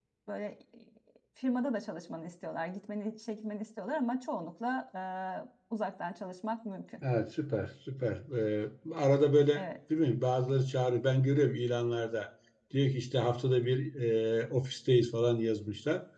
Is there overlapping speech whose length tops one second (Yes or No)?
No